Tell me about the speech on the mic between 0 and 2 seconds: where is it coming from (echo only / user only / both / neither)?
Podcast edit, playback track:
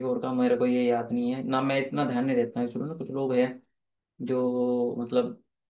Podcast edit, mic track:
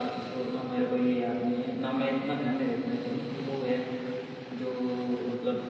echo only